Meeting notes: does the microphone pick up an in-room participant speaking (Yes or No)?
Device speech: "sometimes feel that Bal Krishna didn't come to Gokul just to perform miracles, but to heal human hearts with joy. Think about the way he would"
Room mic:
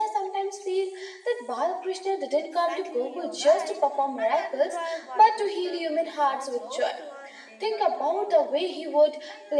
Yes